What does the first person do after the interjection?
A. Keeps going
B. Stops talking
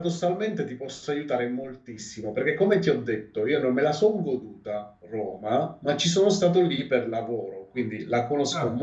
A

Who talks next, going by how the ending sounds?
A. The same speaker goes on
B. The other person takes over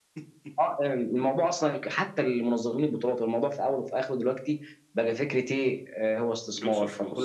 A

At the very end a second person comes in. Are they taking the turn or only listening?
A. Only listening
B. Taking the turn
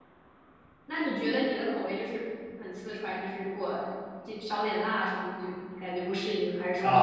B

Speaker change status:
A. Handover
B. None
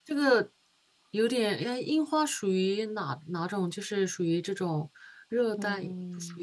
A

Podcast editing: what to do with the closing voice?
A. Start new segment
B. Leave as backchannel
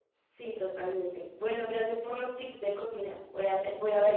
B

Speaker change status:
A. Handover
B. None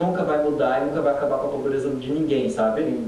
B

